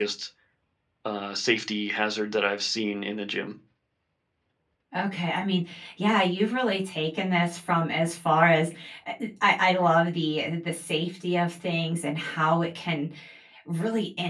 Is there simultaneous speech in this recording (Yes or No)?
No